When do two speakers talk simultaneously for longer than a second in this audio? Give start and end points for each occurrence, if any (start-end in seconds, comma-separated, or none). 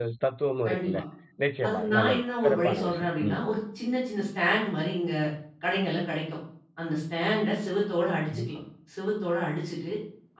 1.7-3.4